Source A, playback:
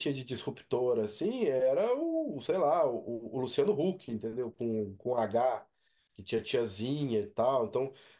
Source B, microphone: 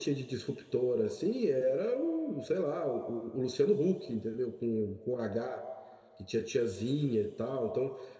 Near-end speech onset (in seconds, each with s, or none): none